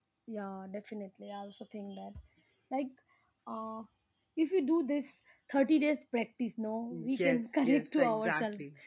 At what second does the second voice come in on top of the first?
6.9 s

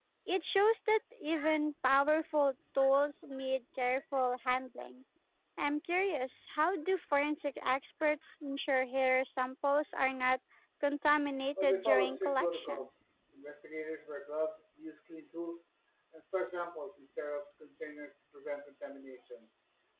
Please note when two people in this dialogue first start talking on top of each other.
11.6 s

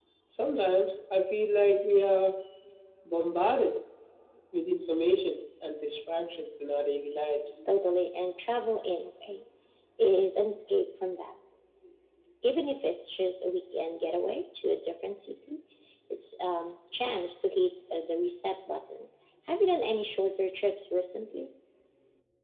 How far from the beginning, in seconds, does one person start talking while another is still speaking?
none

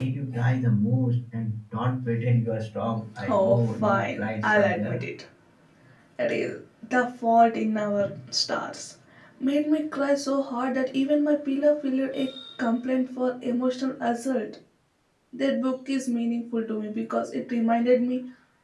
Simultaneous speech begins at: 3.2 s

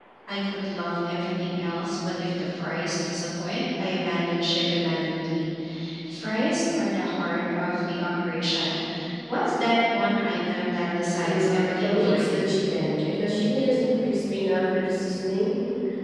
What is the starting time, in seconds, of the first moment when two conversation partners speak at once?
11.2 s

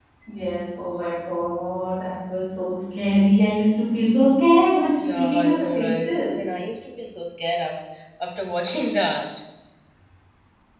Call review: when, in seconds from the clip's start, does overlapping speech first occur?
5.0 s

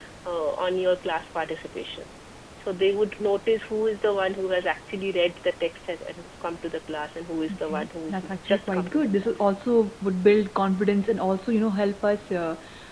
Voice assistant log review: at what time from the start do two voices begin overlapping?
7.5 s

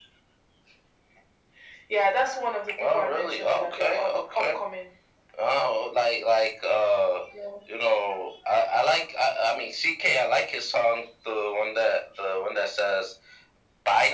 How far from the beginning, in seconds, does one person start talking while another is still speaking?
2.8 s

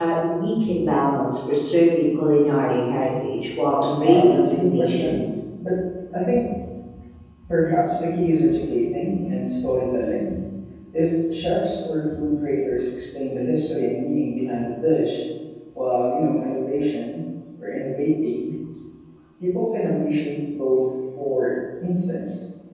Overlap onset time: 3.8 s

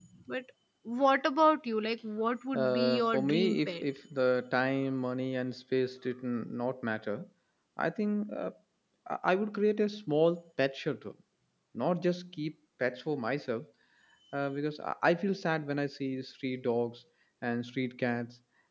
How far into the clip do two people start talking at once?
2.5 s

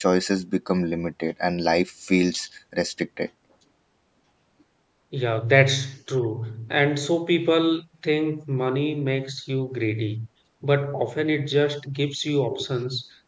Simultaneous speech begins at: none

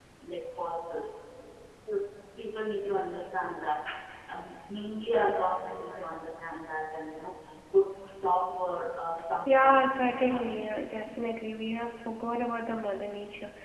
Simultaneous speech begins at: 9.5 s

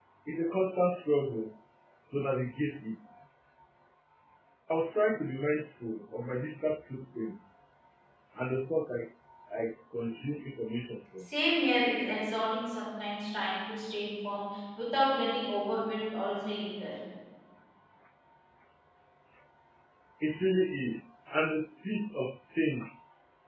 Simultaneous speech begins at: none

